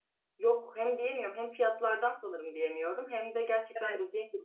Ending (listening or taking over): listening